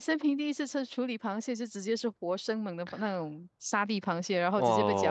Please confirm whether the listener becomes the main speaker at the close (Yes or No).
Yes